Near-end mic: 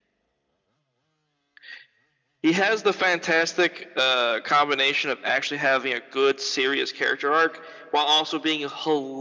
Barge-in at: none

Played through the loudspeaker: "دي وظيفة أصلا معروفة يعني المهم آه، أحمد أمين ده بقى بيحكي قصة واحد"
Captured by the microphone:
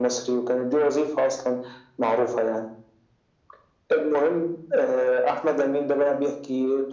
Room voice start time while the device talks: none

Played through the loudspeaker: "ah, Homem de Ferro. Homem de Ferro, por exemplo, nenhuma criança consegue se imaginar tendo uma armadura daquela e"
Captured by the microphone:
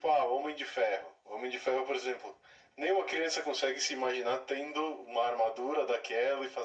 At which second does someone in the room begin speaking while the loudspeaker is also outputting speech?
none

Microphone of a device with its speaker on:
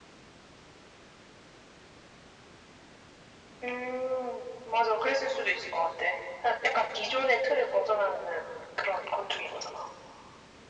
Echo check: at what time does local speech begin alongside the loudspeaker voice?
none

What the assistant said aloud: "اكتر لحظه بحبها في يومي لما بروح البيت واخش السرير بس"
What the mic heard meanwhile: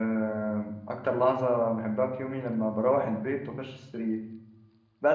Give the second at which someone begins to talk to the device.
none

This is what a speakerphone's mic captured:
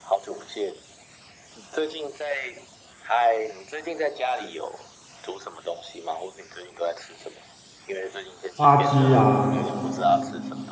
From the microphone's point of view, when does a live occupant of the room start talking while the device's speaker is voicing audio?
8.6 s

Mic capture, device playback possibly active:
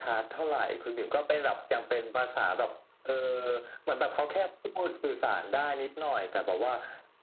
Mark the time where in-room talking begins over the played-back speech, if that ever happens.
none

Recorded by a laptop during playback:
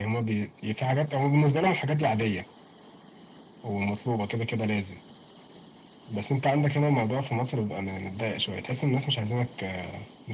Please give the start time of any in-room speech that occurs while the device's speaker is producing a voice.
none

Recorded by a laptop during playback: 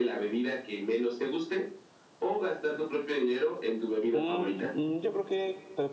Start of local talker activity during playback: 4.1 s

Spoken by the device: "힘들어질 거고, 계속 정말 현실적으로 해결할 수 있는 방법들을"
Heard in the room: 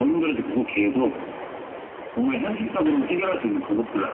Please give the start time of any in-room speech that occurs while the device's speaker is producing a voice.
none

